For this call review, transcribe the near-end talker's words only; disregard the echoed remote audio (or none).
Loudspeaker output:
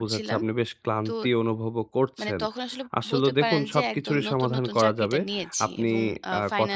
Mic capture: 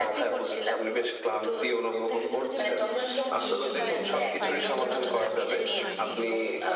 দেখা যেত যে আমি যেহেতু নতুন ছিলাম এবং আমার ফাইনাল এক্সামটাও আর কি শেষ হয়নি।